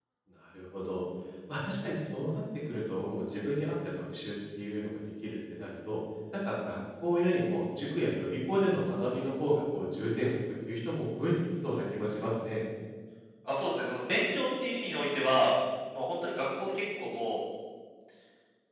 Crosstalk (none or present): none